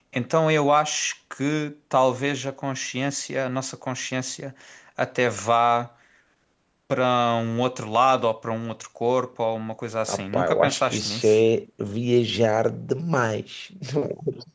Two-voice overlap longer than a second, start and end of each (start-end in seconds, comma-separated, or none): 10.1-11.4